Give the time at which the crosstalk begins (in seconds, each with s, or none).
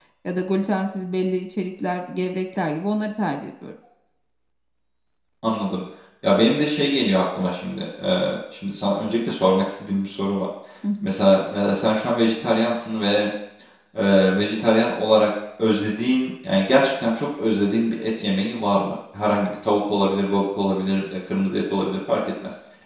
none